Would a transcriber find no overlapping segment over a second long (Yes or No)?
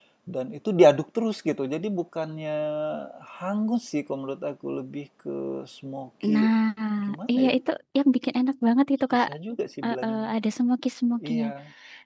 Yes